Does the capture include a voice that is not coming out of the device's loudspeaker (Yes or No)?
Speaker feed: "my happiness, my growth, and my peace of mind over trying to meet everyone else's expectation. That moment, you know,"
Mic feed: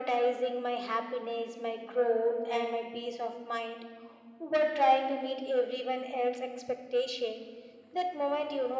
No